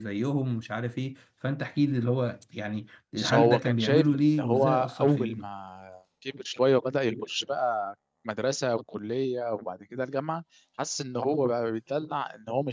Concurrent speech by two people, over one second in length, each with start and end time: 3.2-5.5

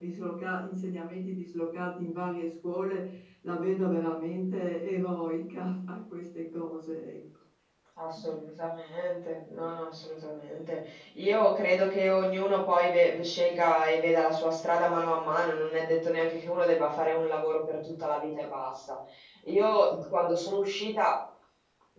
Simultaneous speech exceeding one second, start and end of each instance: none

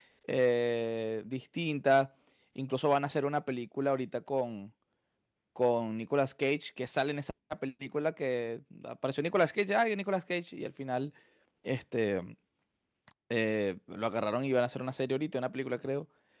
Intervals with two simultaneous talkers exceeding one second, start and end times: none

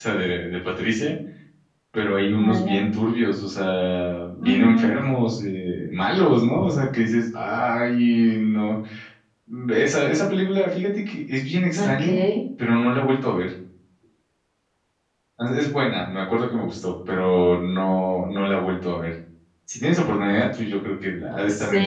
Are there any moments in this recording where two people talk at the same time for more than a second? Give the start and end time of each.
none

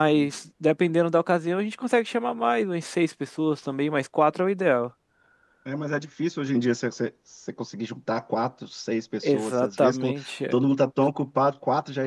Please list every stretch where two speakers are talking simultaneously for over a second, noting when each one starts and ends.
9.2-10.6

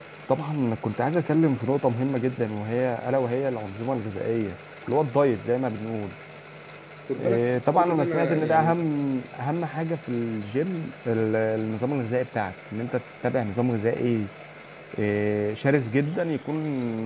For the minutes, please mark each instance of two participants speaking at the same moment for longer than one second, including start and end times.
7.2-8.9

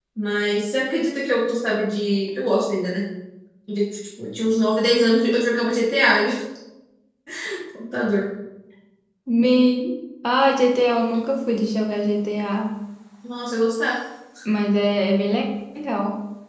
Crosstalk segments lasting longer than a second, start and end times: none

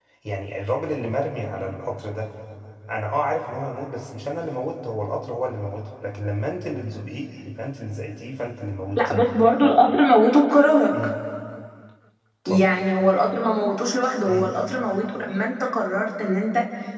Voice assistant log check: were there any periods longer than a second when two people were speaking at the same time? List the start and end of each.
none

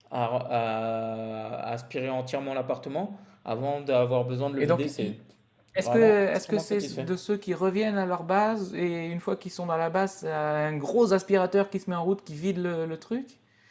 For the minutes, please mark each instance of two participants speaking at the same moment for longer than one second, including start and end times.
5.8-7.1

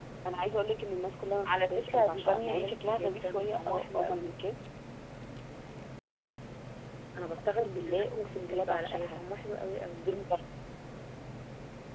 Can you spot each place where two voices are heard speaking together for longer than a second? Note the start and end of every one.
1.5-4.3, 7.5-9.2

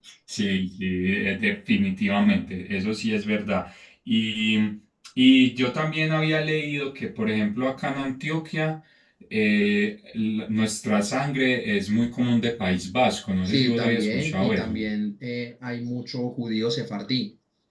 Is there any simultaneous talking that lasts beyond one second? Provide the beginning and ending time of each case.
13.4-14.8

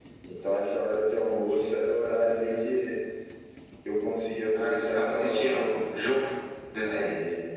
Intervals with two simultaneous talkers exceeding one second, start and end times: 4.6-6.2

